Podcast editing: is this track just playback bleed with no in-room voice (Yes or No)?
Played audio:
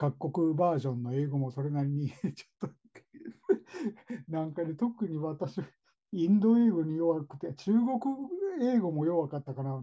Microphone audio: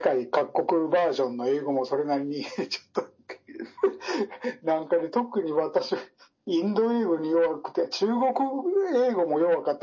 Yes